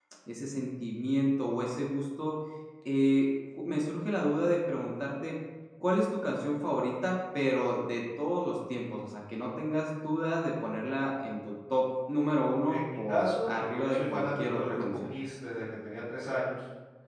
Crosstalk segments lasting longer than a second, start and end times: 12.7-15.1

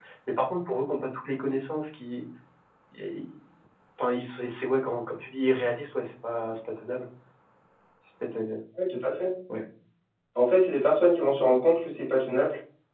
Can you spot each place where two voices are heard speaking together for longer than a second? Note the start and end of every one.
none

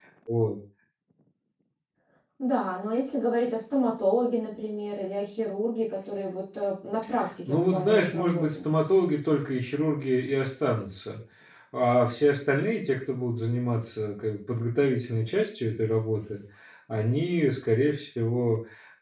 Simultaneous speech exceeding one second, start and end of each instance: 7.5-8.7

